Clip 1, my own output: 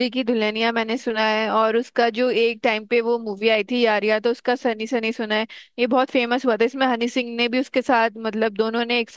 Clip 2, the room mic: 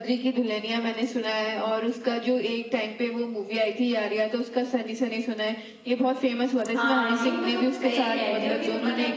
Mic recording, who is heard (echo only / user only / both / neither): both